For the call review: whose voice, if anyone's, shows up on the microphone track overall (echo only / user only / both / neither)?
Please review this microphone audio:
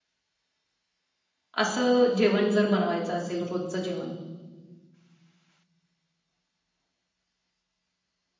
user only